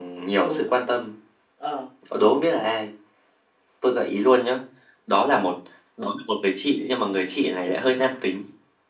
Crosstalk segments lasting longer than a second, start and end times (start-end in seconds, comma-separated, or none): 6.7-8.1